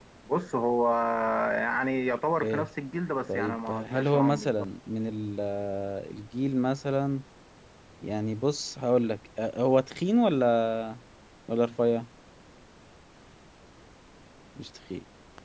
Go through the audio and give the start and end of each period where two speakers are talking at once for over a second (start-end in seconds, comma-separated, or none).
3.3-4.5